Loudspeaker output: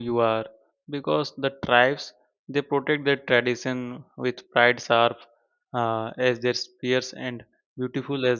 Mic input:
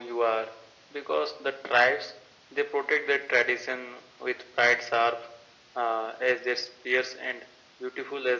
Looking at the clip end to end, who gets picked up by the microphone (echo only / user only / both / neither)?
echo only